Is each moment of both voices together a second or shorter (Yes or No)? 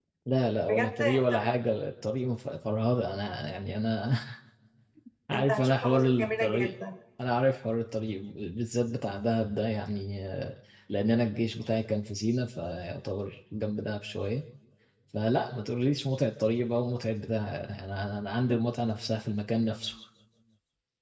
No